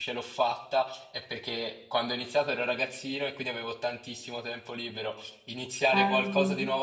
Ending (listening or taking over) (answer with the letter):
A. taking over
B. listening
B